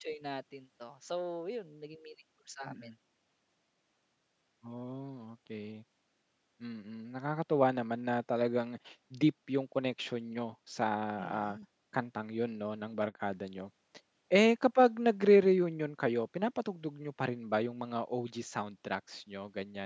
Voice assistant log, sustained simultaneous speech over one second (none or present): none